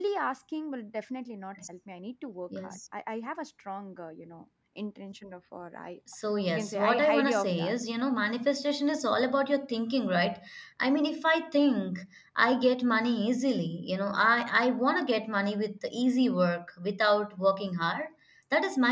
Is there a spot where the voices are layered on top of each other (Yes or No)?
Yes